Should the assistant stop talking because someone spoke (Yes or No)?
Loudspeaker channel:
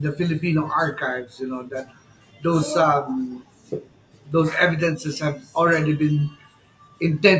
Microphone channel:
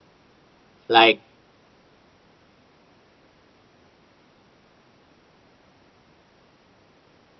Yes